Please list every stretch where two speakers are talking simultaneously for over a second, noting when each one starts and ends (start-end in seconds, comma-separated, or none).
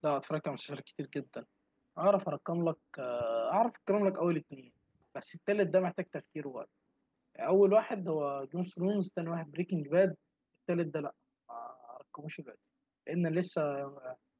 none